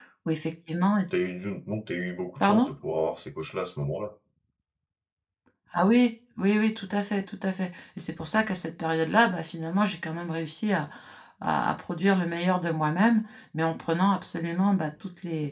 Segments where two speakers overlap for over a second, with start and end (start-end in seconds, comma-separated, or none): none